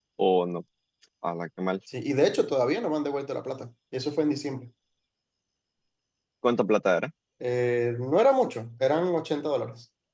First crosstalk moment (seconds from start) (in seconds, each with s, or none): none